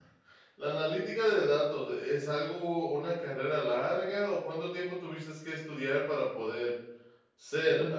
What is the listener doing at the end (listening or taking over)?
taking over